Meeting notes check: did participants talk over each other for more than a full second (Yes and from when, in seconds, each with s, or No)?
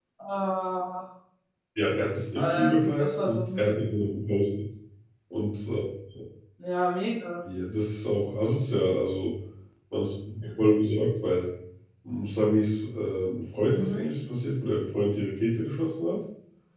Yes, from 2.4 s